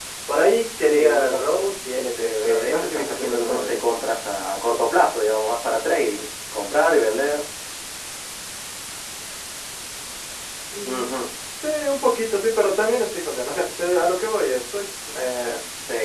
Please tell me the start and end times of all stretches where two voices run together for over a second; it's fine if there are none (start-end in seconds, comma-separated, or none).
0.9-3.8